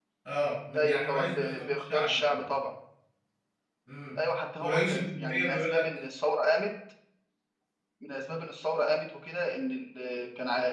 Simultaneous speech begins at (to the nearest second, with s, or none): 1 s